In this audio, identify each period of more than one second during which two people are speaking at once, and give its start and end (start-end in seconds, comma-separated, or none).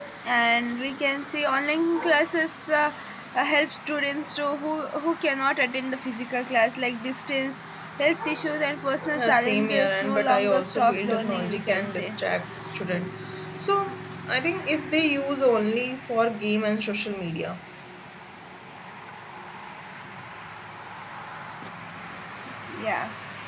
9.2-12.1